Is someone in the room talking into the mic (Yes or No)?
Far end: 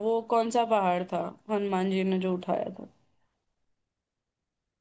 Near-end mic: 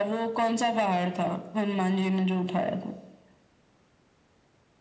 No